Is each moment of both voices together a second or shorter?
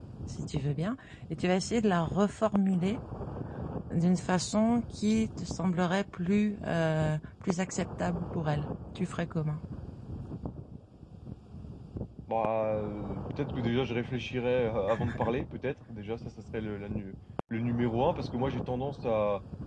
Yes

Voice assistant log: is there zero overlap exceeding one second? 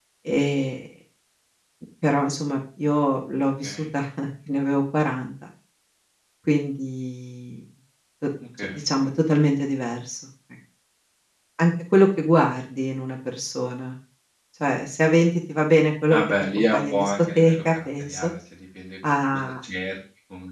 No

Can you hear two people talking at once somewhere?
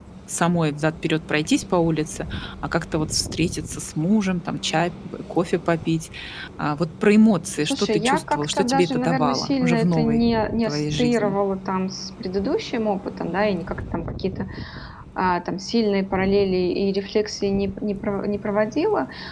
Yes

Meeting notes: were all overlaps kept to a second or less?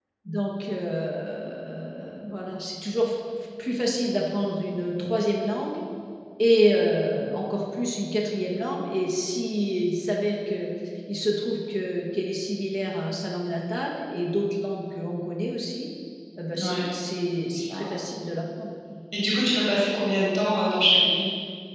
Yes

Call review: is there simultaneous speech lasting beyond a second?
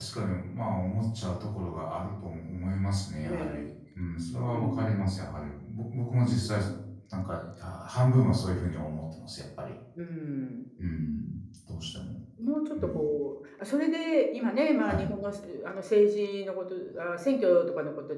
No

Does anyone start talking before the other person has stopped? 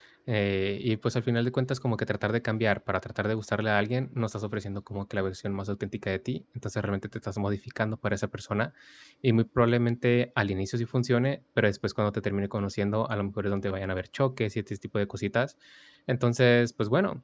No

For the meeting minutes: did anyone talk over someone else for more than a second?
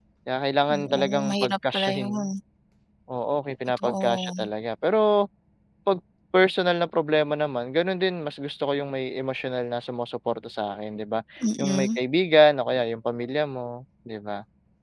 Yes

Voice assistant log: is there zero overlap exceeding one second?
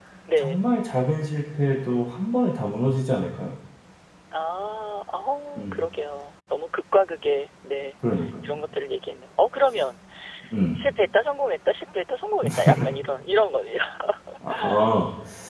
Yes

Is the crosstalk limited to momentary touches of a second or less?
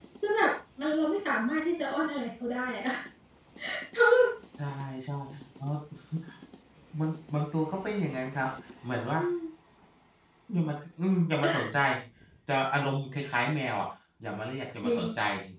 Yes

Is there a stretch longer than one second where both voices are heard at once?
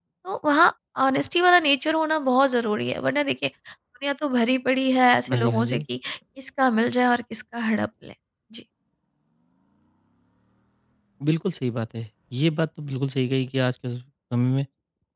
No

